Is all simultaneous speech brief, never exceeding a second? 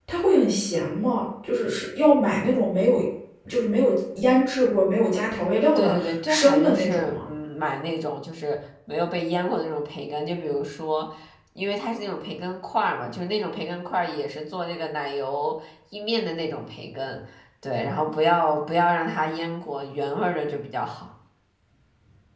No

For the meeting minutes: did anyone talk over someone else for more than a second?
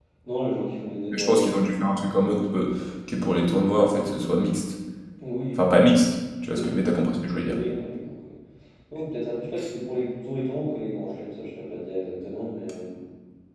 No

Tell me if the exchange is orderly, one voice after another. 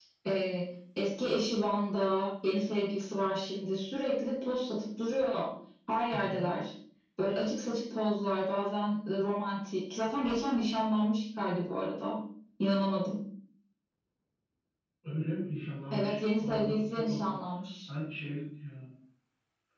No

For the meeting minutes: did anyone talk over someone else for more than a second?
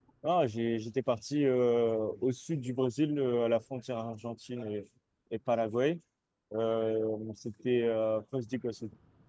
No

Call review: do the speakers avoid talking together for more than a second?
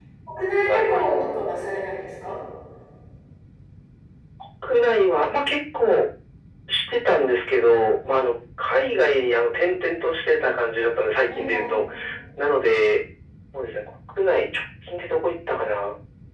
Yes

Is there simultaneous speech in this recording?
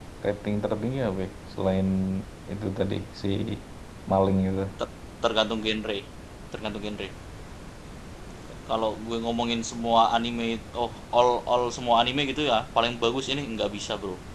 No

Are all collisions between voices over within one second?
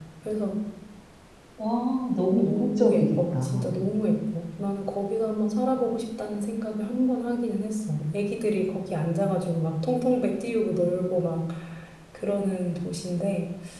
No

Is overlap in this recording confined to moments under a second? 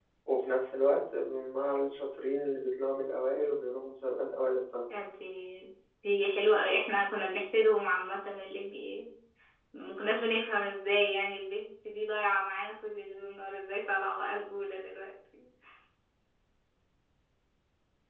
Yes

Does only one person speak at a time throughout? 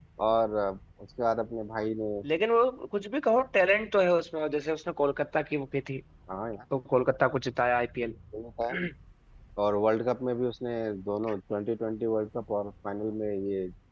Yes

